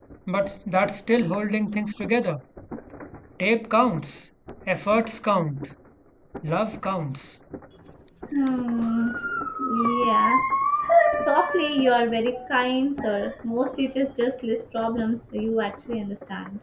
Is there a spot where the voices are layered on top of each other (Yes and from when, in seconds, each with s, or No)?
No